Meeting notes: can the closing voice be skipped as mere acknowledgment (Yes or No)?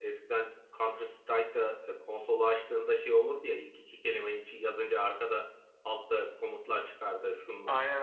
Yes